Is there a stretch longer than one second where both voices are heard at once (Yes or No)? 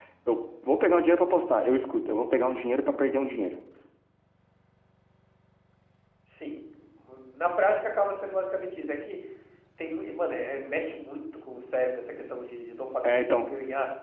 No